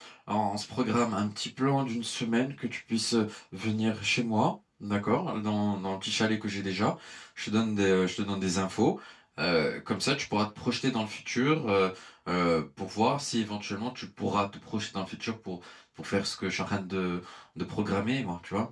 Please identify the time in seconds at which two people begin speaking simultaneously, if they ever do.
none

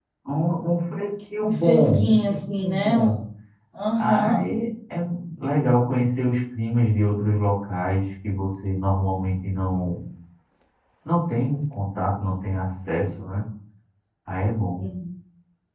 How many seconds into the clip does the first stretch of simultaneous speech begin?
1.4 s

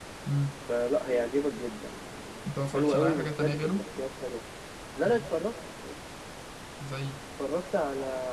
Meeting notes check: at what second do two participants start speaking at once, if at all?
2.5 s

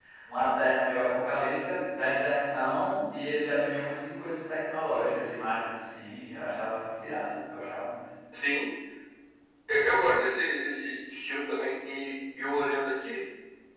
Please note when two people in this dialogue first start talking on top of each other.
none

